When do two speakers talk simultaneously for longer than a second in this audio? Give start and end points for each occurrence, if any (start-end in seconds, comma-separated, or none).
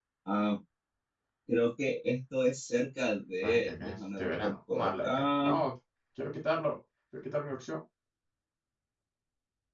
3.4-5.5